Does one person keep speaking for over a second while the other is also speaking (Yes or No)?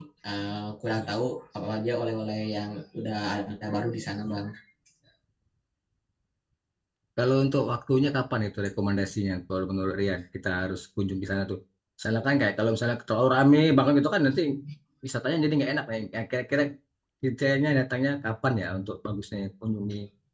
No